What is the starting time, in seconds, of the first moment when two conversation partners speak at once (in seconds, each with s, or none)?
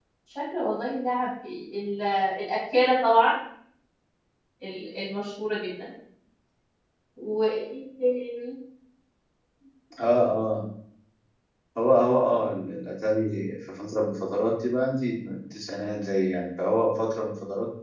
none